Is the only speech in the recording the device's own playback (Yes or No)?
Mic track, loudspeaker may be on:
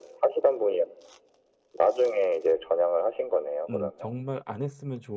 No